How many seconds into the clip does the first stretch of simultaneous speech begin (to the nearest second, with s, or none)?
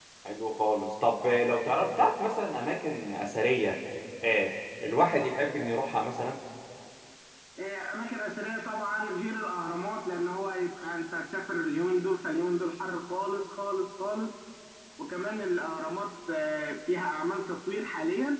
none